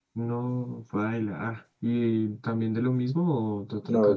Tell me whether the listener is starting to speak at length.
Yes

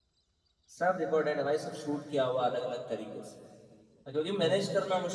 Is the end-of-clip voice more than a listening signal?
No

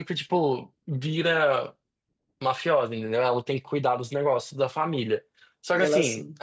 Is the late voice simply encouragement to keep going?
Yes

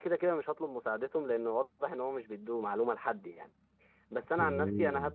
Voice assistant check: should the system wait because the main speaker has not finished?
Yes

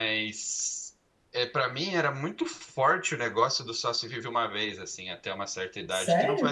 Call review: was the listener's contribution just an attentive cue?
Yes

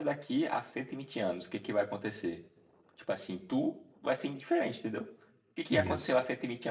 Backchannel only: Yes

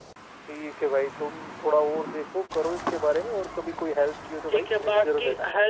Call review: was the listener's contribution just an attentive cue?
No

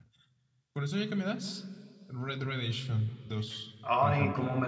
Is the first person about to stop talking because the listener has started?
Yes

